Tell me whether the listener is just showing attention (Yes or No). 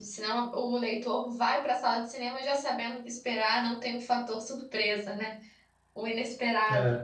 Yes